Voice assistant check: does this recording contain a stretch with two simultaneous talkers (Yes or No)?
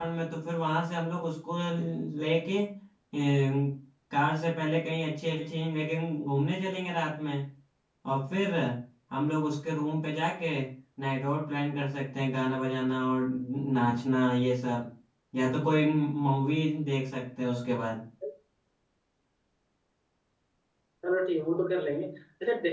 No